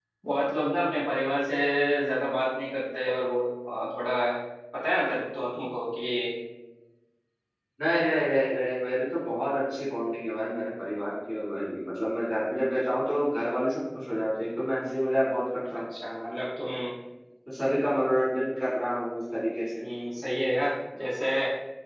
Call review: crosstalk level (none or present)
none